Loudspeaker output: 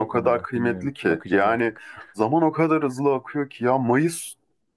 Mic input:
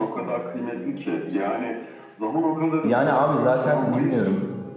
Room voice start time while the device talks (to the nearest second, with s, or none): 3 s